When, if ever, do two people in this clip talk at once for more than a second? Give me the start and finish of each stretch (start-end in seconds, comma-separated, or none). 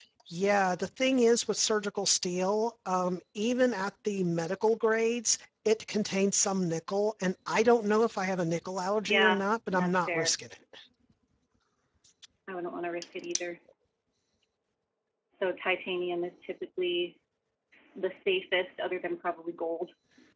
9.1-10.3